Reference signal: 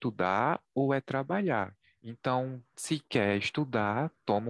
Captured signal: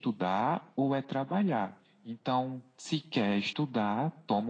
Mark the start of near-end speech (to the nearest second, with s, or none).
none